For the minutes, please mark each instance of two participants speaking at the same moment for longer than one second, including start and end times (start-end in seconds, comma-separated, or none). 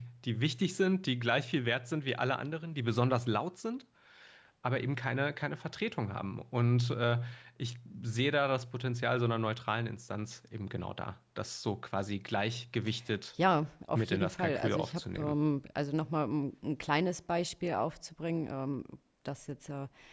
13.9-15.3